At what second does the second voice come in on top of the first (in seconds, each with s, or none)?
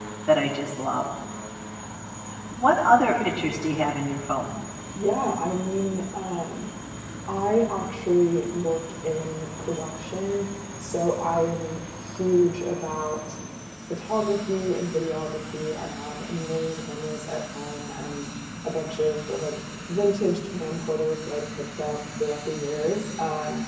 none